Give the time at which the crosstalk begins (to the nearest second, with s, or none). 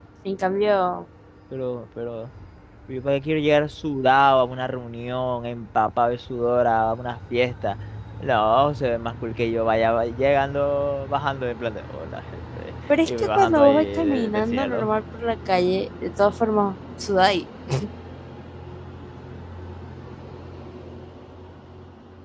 13 s